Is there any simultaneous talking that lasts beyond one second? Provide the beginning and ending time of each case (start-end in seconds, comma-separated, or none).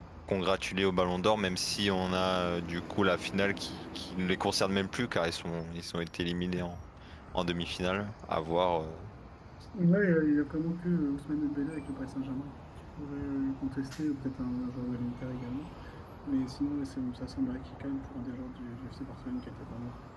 none